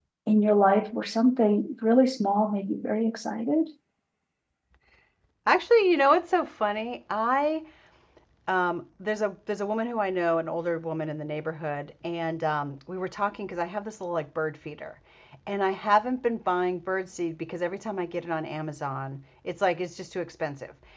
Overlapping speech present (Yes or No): No